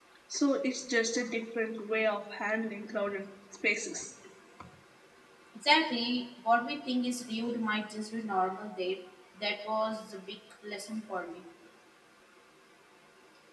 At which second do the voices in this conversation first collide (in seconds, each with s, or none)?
none